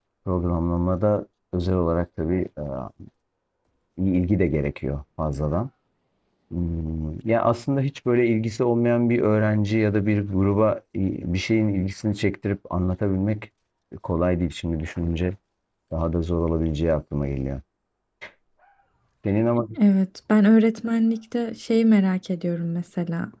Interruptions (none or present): none